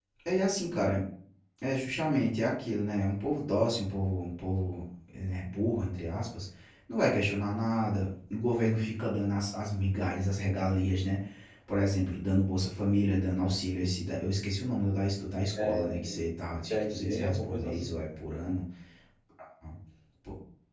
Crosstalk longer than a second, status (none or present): present